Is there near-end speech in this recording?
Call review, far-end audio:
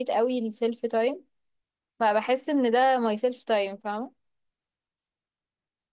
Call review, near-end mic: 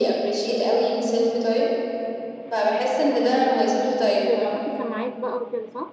Yes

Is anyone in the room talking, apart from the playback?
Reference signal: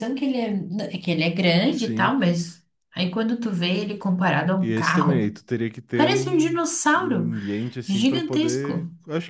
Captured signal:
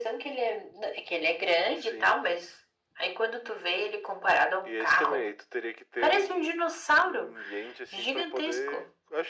No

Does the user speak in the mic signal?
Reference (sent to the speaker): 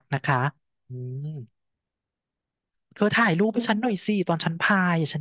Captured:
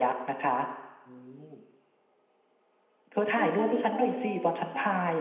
Yes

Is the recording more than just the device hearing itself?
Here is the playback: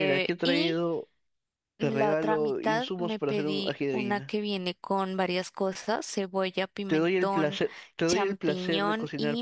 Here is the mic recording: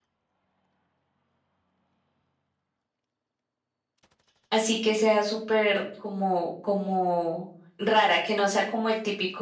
Yes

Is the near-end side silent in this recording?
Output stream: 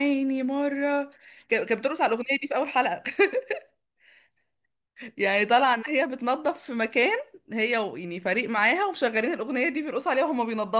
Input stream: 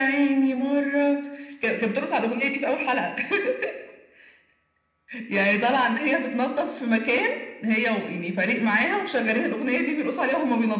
Yes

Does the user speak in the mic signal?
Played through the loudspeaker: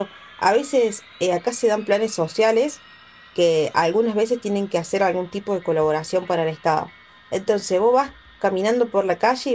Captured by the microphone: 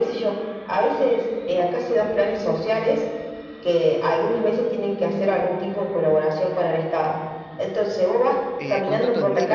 Yes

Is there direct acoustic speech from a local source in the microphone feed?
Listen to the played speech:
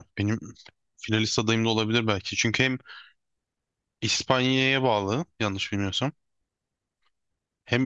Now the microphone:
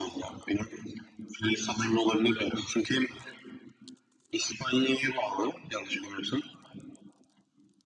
No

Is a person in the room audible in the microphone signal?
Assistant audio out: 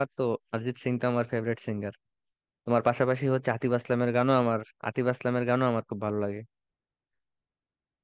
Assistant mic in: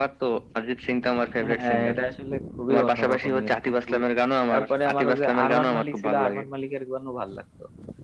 Yes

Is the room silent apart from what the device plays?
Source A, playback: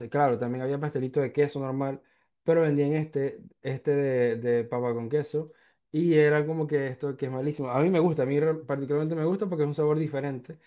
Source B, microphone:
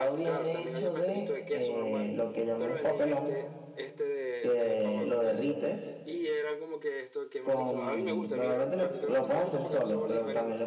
No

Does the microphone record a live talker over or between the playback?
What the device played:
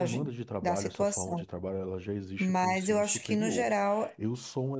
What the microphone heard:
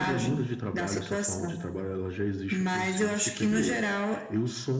No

